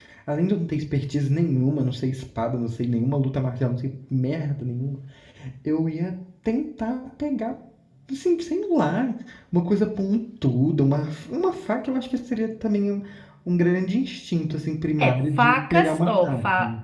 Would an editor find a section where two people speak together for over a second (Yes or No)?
Yes